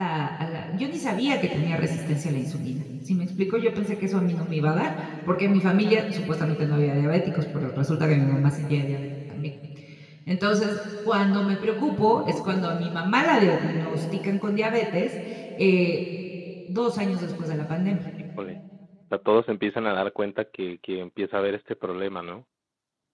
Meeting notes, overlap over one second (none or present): none